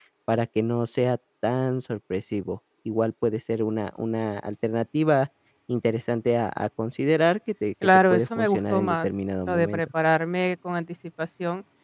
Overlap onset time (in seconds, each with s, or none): 7.8 s